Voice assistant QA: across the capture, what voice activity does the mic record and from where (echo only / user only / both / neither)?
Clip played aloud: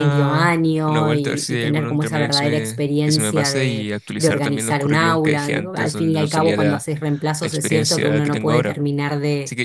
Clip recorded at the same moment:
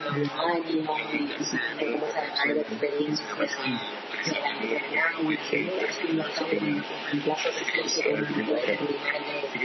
echo only